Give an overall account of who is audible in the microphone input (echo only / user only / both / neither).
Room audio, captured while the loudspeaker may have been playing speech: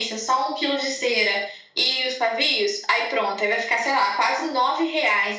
echo only